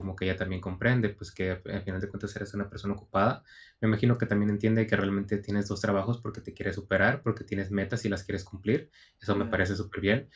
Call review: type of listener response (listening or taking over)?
listening